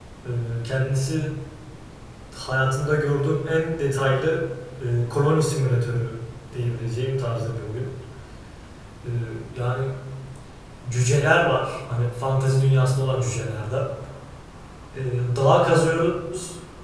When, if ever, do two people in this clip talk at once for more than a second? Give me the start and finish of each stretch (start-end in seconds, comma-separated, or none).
none